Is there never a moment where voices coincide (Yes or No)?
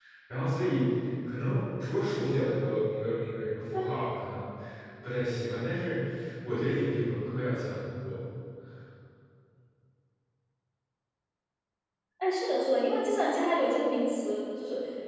Yes